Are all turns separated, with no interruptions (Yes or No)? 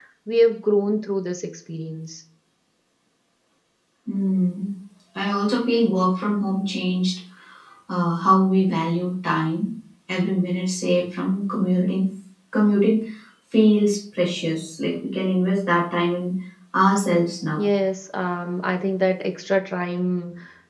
Yes